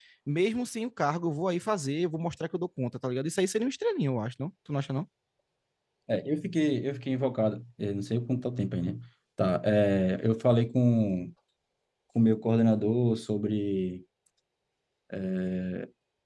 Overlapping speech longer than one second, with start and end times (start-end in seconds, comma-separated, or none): none